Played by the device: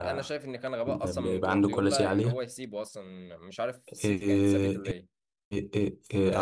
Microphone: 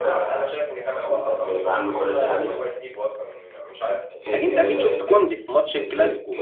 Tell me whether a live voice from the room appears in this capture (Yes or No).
Yes